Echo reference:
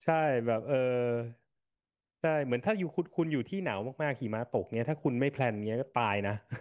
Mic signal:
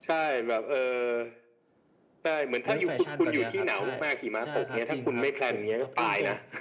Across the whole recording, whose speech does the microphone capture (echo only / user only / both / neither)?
both